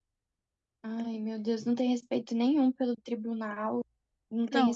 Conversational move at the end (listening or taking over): listening